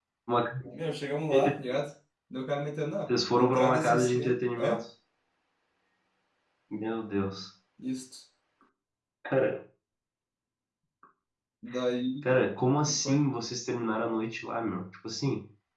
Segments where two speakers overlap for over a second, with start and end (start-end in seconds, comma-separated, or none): 3.1-4.8